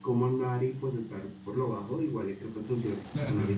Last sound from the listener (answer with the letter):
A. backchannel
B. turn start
B